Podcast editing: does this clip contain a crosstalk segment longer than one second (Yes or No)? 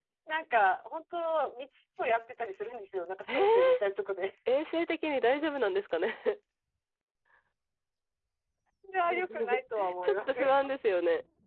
Yes